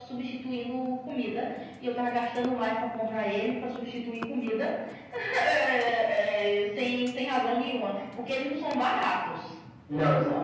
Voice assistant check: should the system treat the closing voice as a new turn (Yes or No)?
Yes